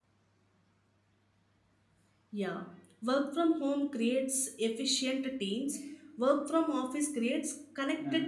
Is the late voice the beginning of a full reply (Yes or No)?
Yes